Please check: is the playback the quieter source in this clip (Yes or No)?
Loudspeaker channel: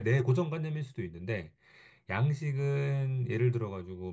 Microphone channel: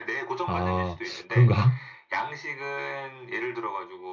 Yes